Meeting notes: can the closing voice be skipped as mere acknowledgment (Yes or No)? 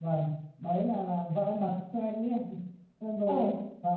Yes